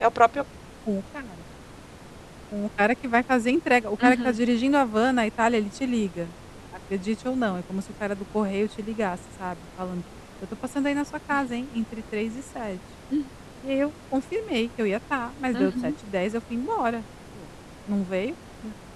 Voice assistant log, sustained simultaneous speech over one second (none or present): none